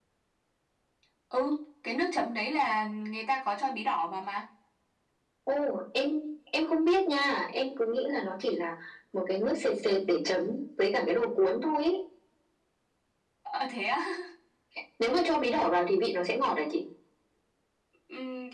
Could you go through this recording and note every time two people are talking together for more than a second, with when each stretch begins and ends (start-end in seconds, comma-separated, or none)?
none